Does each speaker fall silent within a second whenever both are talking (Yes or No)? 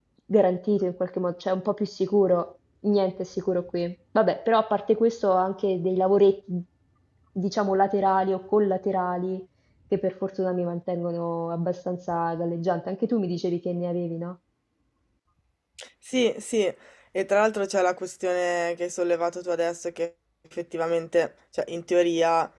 Yes